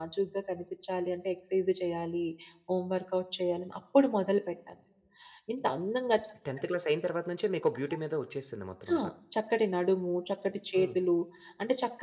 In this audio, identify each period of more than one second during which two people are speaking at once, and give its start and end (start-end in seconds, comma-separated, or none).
none